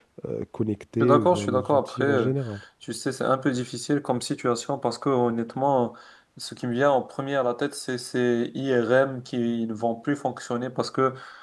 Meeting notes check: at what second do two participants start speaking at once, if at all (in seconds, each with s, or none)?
1.0 s